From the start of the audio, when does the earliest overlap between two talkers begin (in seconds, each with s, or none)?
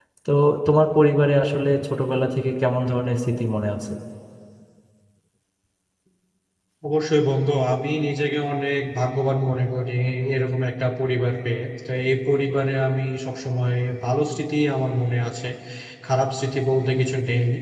none